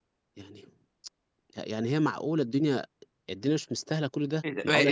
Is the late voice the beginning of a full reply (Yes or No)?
Yes